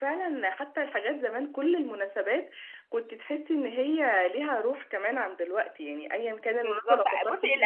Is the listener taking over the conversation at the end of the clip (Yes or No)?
Yes